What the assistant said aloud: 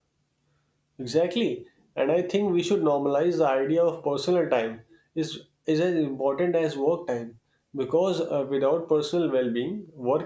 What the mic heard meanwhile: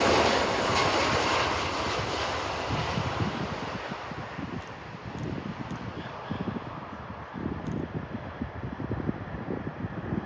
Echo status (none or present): none